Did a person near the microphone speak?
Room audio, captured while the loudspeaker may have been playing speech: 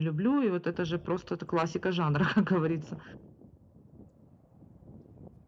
No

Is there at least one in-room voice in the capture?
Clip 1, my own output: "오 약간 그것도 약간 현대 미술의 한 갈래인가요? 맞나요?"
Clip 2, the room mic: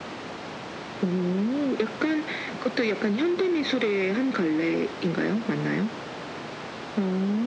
No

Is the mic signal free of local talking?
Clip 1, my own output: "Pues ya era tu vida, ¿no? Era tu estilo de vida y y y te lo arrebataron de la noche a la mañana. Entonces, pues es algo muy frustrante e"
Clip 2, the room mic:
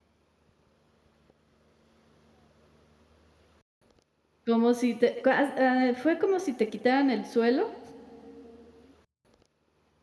No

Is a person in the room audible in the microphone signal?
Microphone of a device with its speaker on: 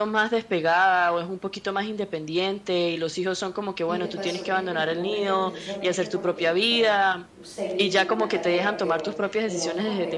Yes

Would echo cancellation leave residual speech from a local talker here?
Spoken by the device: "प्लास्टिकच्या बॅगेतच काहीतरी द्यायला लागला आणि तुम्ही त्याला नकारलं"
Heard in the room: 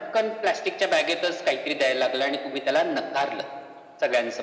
No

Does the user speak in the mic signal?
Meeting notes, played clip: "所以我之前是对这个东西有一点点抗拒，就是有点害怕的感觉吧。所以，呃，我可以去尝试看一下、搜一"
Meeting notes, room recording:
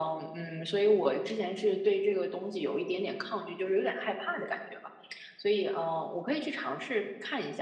No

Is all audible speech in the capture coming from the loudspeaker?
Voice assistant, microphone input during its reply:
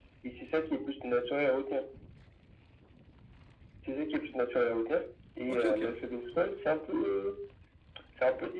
No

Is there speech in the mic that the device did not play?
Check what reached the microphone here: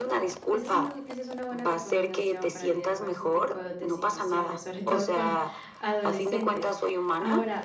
Yes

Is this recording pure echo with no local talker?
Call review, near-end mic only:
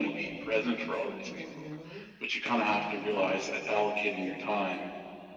No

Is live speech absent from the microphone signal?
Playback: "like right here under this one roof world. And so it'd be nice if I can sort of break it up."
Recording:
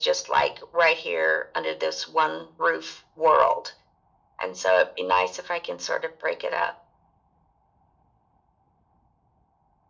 Yes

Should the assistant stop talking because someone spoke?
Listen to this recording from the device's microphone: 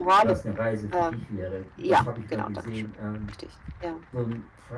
Yes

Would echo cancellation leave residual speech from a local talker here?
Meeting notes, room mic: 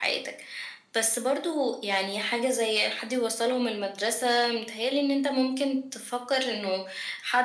No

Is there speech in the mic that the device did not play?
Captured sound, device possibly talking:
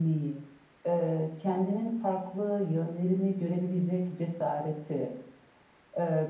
No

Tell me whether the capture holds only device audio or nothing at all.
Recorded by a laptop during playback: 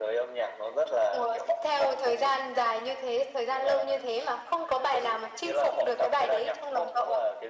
Yes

